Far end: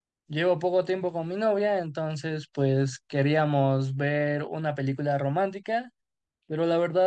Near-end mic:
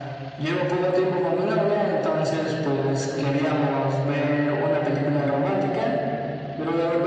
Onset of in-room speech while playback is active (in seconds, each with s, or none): none